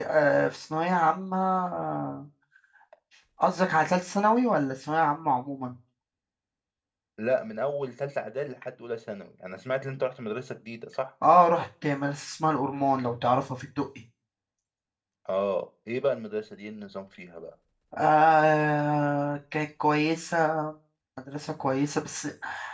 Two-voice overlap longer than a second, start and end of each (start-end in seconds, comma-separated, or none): none